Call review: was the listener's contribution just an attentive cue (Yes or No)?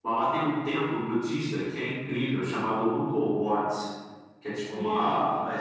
No